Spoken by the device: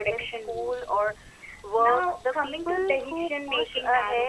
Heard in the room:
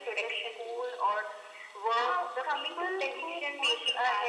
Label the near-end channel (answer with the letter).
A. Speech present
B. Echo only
B